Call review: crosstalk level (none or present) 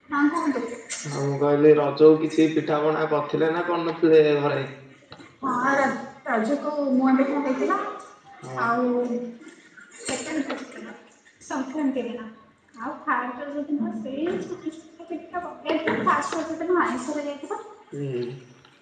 none